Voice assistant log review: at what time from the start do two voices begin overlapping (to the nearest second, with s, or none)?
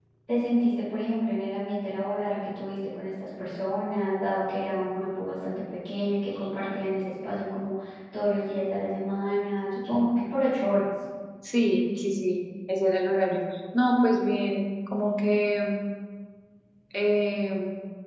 none